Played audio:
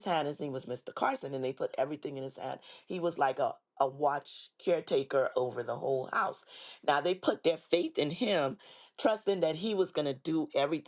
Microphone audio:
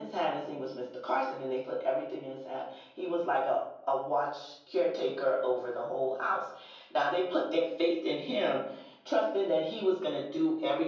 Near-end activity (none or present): none